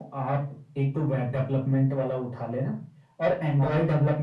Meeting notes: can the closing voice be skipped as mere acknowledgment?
Yes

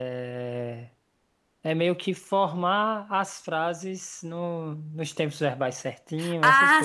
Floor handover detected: Yes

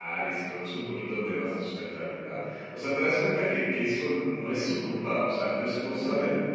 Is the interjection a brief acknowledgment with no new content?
Yes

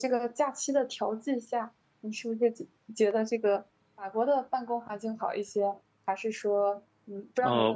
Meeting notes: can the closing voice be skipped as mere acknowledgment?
No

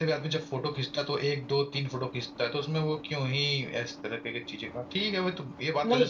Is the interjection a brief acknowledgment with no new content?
Yes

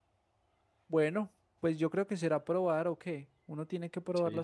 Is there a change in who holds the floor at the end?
Yes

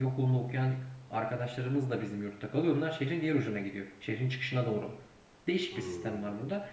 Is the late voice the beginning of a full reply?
No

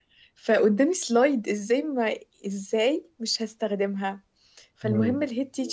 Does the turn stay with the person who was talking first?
Yes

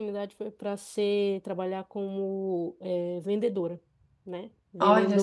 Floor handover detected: No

